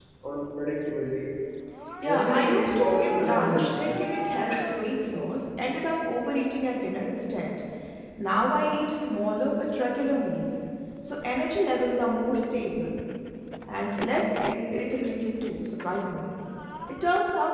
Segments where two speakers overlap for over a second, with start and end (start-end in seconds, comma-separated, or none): 2.0-4.0